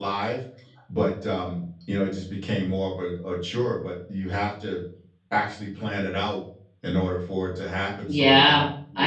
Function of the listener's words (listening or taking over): taking over